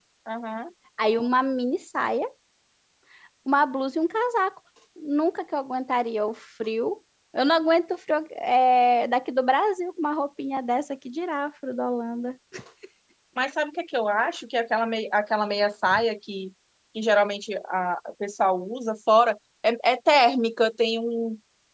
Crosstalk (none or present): none